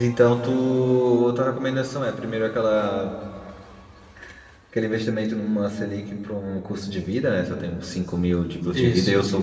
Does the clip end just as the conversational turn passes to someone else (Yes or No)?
No